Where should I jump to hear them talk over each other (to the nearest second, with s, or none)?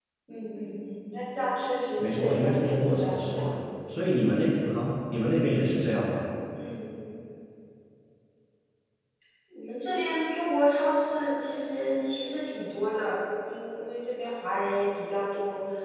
2 s